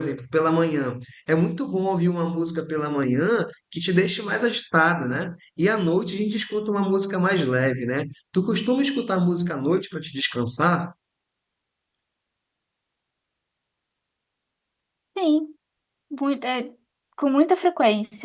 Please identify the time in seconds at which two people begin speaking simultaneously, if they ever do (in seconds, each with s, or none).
none